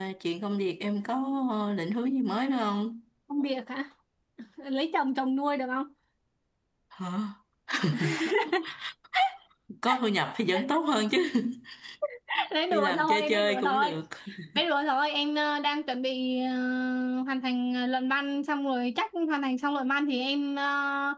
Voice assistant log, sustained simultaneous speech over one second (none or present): present